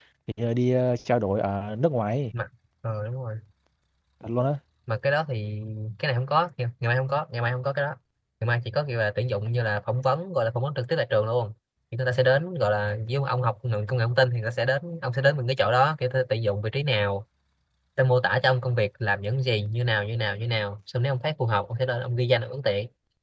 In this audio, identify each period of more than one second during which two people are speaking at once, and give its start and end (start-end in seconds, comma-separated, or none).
none